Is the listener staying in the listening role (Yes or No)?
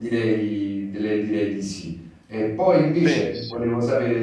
Yes